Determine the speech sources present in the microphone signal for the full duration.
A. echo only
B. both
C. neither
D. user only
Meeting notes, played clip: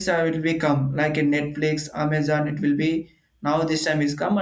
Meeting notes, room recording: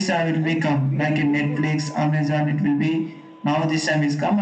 B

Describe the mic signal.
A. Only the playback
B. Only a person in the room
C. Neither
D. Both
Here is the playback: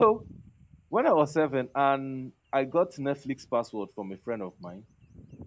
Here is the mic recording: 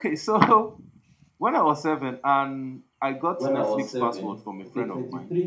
D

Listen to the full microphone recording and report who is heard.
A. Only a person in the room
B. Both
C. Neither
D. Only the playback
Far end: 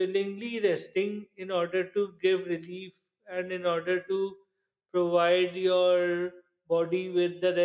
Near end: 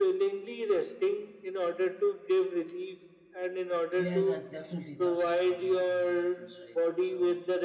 B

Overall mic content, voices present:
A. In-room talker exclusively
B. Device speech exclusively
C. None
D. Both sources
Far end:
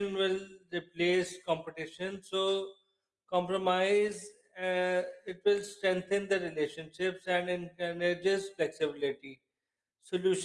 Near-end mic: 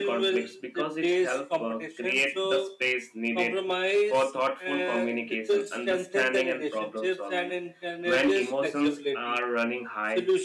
D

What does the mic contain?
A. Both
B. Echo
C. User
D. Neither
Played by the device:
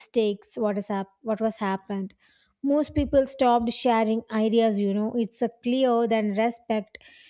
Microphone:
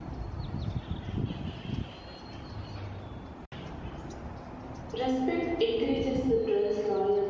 C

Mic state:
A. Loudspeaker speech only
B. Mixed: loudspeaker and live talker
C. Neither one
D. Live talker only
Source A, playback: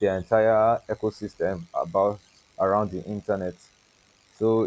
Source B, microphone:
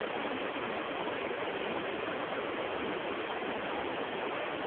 C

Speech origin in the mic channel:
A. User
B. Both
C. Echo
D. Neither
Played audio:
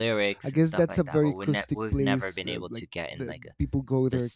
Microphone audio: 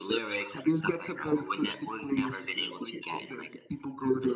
C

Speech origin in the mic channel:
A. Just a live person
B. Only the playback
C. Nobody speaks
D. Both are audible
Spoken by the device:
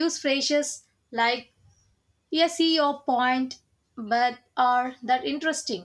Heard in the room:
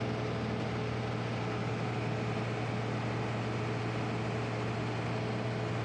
C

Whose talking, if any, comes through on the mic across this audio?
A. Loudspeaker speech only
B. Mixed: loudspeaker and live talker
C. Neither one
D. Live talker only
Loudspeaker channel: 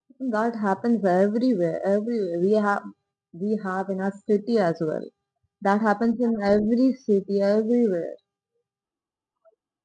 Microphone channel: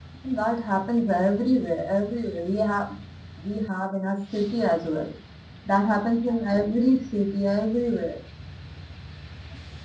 A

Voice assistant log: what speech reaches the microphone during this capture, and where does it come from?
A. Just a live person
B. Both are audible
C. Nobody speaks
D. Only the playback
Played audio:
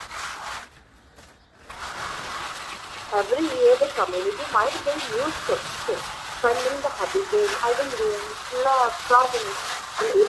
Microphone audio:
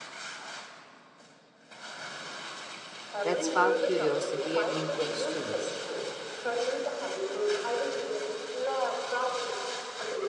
B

